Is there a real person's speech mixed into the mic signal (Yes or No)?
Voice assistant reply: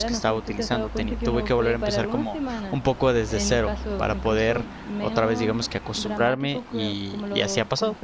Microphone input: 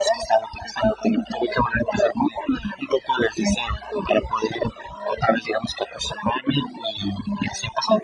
No